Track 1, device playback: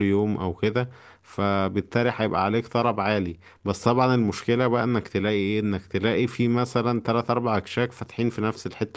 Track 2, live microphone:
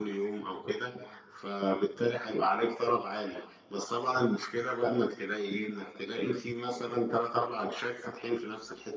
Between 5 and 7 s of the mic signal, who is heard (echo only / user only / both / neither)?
echo only